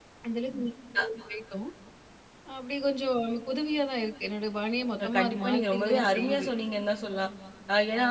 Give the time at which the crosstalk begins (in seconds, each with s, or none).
5.0 s